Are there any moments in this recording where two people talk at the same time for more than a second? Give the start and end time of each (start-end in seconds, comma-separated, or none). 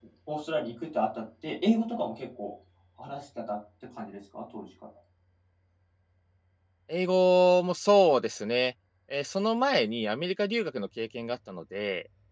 none